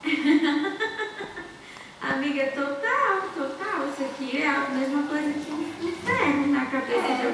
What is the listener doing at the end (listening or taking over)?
taking over